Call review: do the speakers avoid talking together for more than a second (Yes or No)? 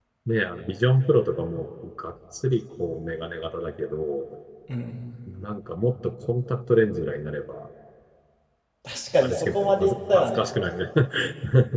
No